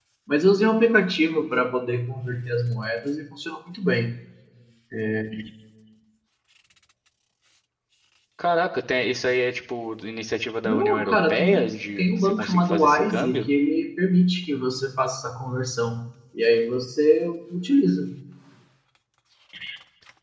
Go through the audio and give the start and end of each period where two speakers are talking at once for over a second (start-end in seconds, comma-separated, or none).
10.7-13.5